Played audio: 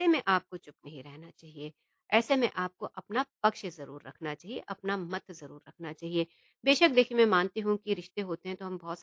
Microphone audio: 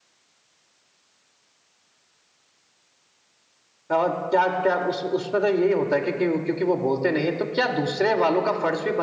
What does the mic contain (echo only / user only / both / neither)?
user only